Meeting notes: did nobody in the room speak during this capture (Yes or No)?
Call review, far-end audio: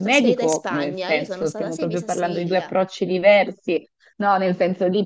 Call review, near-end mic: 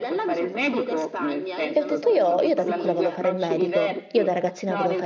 No